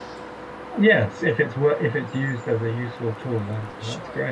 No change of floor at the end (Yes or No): No